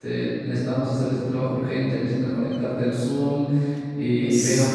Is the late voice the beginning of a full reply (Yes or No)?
No